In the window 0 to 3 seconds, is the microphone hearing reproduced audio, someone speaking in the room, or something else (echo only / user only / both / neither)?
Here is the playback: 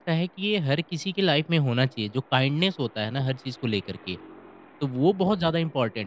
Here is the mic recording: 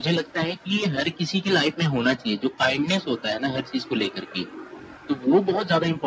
echo only